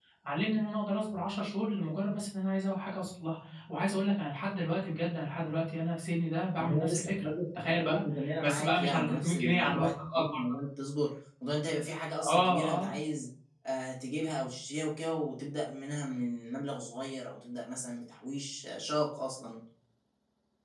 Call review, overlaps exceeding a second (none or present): present